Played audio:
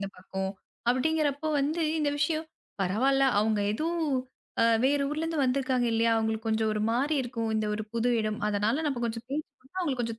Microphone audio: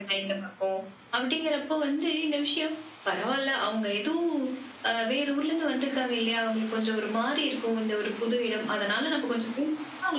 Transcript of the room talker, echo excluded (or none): none